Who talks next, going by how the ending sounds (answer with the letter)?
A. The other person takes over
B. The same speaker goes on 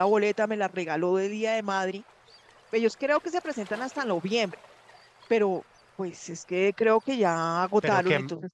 A